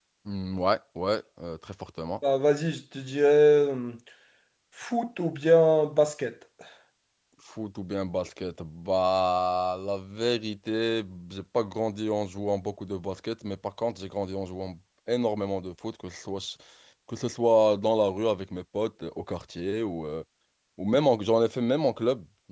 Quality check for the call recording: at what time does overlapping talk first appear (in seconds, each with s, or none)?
none